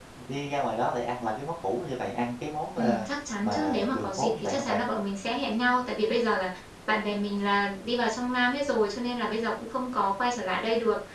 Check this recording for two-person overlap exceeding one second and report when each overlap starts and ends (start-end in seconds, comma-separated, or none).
3.4-4.8